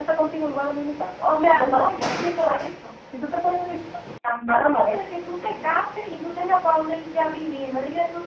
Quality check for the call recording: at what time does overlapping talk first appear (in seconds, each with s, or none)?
1.4 s